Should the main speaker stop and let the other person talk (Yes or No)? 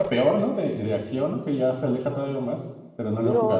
Yes